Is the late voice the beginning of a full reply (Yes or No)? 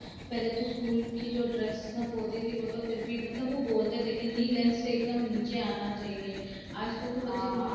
Yes